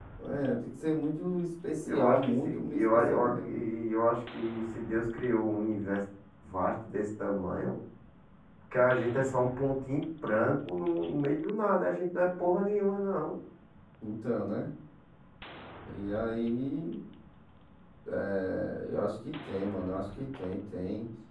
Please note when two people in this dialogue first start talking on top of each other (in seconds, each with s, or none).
1.8 s